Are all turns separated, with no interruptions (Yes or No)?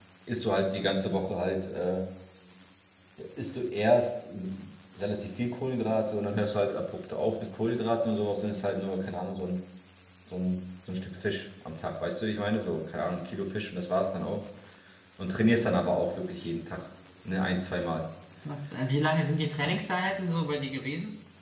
Yes